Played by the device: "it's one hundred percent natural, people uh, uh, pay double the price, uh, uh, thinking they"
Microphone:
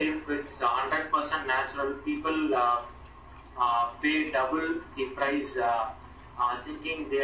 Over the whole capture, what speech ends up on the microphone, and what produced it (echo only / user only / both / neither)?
echo only